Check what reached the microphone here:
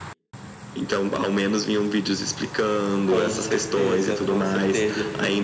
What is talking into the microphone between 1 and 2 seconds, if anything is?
echo only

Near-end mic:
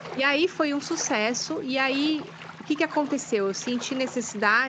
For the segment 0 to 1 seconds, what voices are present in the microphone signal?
user only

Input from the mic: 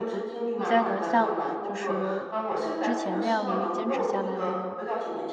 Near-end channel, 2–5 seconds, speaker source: both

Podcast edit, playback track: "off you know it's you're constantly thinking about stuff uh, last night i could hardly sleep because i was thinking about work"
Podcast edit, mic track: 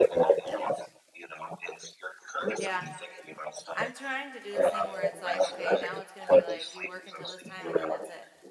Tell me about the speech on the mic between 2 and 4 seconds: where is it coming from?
both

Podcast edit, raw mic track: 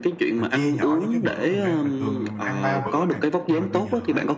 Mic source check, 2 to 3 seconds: both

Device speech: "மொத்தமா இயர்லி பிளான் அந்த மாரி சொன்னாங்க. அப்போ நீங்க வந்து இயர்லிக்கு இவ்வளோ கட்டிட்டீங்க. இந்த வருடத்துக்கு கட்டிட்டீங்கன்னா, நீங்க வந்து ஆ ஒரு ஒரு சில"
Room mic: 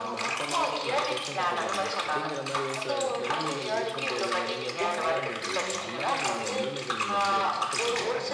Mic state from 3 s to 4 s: both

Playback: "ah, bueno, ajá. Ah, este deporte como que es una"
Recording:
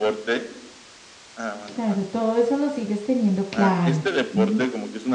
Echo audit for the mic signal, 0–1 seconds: echo only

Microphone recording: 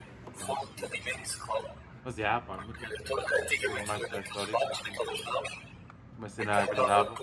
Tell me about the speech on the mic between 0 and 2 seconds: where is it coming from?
both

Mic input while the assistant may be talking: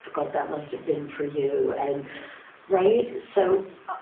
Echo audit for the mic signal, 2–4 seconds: user only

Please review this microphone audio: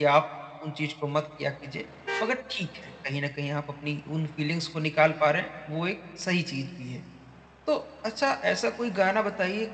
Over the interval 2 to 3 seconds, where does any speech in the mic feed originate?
user only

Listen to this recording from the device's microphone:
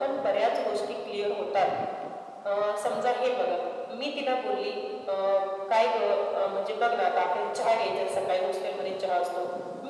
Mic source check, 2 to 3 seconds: echo only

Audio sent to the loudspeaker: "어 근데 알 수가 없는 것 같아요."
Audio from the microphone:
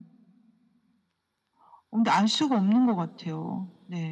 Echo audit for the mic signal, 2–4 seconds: echo only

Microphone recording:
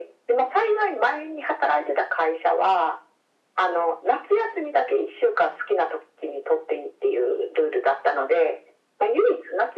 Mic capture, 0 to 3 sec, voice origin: echo only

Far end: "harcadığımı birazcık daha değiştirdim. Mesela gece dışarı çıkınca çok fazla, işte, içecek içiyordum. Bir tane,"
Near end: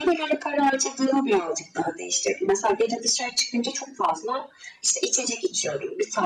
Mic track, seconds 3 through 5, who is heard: echo only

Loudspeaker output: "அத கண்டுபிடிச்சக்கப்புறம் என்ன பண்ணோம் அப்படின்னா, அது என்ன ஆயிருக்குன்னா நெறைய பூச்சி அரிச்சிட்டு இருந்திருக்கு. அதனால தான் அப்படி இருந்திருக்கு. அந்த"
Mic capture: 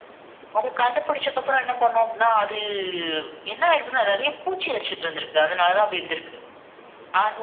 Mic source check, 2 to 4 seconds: echo only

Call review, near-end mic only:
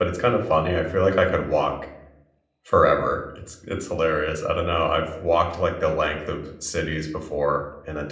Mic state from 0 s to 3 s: user only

